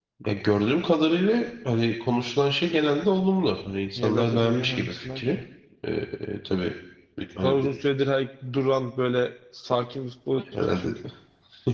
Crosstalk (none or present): present